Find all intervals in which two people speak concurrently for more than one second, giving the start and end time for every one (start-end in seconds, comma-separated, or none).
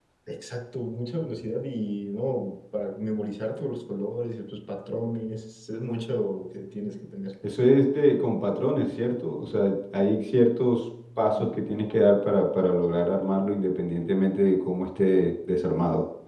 none